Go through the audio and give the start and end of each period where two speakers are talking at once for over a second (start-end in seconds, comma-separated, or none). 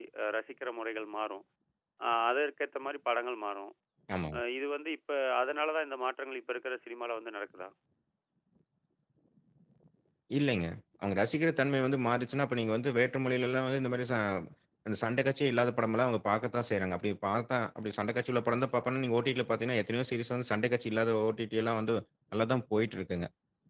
none